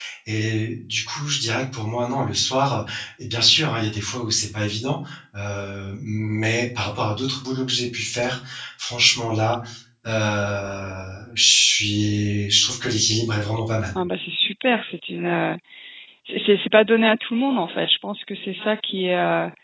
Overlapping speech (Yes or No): No